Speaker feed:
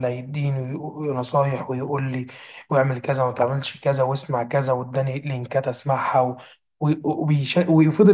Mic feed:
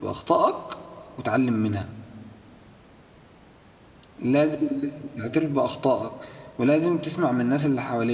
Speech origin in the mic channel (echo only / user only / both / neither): user only